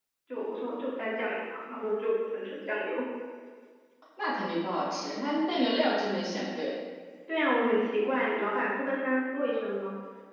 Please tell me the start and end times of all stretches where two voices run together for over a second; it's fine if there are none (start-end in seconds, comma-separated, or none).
none